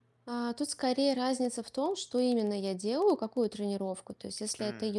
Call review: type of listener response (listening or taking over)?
listening